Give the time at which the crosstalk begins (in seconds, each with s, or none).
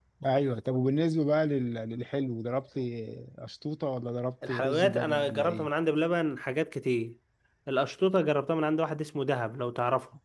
4.4 s